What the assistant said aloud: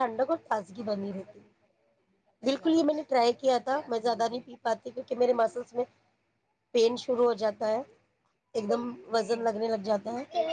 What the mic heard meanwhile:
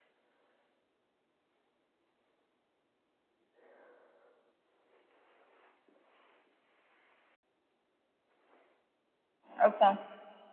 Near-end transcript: اچھا

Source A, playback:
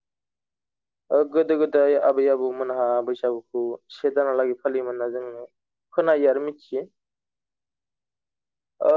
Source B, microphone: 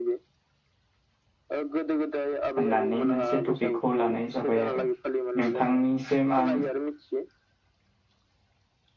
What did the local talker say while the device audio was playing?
होननानै मोनसे टपिकखौ लानाय जाबाय आरो नोंथां। जेनेबा आं

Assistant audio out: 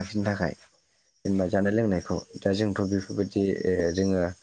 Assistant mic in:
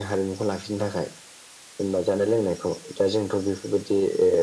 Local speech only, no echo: none

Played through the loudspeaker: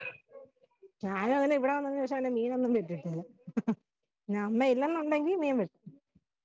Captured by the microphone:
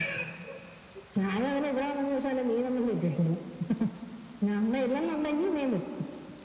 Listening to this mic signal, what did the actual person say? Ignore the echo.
none

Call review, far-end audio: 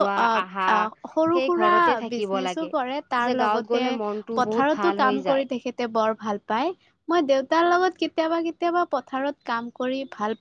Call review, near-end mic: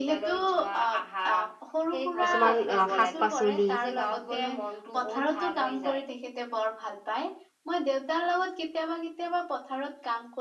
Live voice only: কিছুমান অ শাক-পাচলি

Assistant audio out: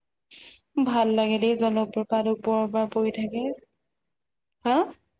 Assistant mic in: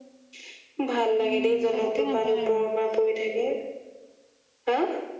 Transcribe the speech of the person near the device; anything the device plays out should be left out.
উম পতককে নাপায় আৰু

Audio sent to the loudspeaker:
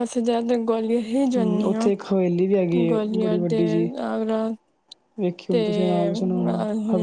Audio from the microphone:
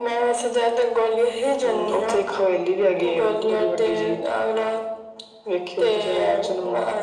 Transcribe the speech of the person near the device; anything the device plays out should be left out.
none

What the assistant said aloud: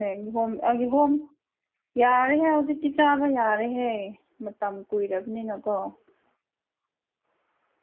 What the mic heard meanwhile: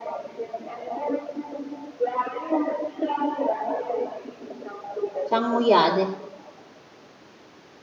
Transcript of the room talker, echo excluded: ꯆꯪꯉꫭ ꯌꯥꯗꯦ

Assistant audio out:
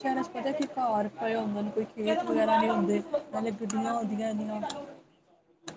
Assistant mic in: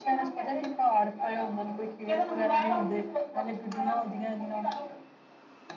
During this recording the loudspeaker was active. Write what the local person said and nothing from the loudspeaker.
none

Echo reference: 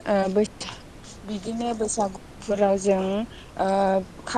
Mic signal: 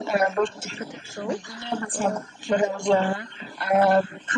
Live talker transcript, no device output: बोथोरखौ ओ

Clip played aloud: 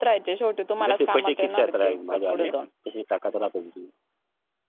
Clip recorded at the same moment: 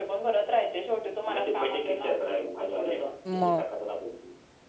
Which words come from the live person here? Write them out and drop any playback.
म?

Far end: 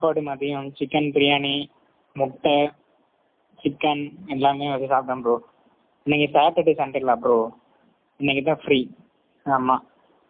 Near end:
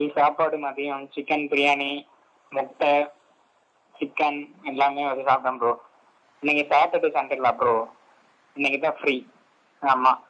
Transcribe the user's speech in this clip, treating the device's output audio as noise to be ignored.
none

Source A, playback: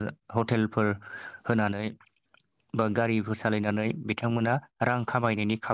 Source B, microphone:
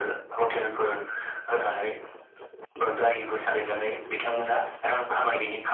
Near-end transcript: none

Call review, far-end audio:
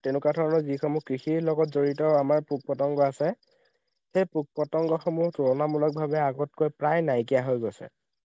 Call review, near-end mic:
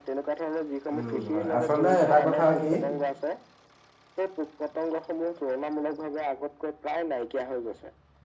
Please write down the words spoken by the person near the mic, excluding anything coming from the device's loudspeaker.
উম হয় আচলতে এটা কথা কি

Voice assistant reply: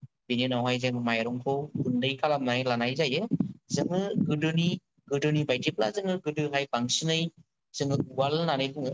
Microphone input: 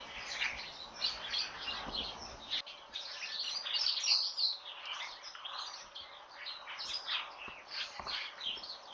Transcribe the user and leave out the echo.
none

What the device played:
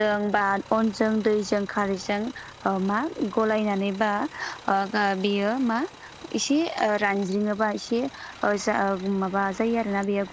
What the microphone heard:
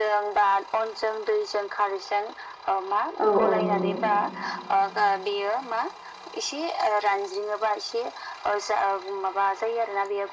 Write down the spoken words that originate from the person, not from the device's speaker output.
औ औ नंगौ।

